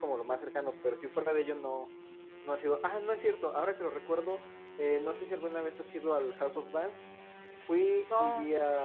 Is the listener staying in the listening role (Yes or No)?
Yes